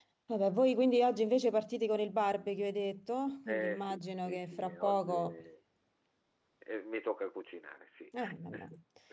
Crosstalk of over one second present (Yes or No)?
Yes